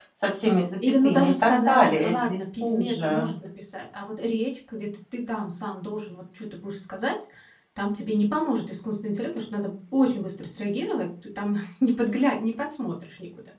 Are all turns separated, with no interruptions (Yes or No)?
No